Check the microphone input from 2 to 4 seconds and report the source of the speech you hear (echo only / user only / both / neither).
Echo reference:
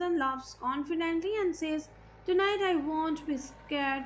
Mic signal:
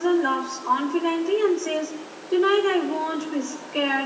echo only